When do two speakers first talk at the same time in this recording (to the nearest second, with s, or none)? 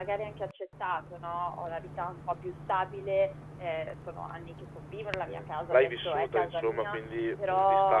5 s